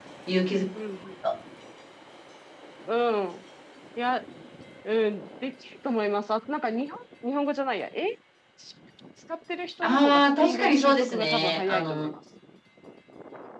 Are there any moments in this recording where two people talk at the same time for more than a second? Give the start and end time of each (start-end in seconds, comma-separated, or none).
9.8-12.0